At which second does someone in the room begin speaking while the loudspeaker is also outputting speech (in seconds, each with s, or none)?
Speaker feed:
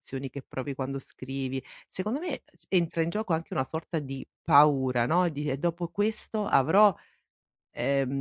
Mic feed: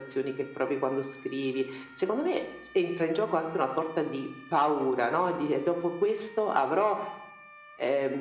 none